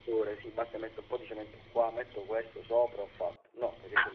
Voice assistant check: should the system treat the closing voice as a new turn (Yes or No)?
Yes